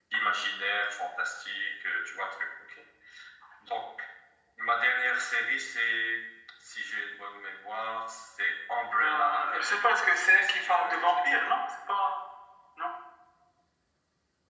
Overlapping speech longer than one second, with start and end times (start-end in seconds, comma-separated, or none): 9.0-11.4